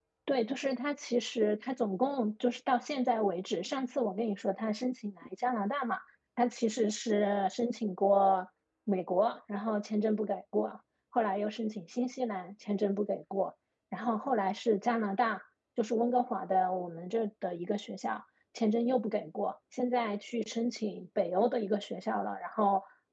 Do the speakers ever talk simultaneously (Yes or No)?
No